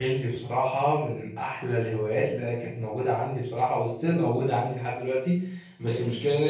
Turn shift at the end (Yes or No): No